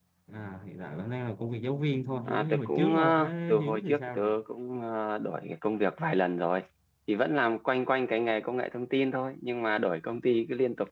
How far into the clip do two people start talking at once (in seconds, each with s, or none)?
2.3 s